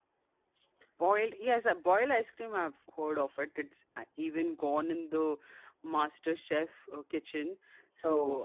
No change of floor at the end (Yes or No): Yes